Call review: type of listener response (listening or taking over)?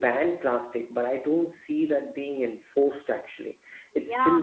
taking over